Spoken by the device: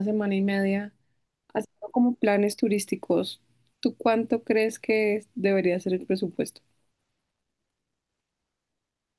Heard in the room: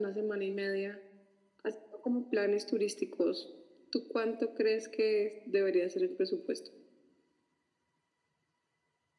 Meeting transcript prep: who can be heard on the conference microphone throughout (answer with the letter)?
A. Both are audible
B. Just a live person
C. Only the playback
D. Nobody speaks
C